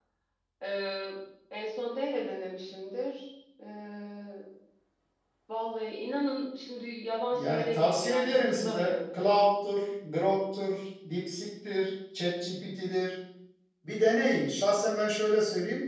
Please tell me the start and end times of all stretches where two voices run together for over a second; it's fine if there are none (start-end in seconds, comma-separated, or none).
7.3-9.0